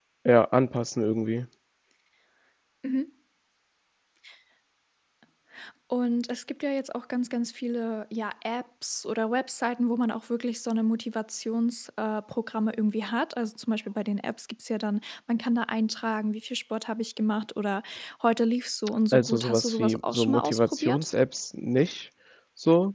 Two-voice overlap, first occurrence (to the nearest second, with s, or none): 19 s